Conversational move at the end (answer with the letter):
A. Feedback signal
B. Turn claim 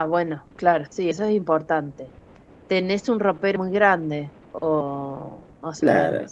B